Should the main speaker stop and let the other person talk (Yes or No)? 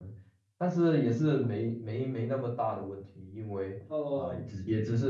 No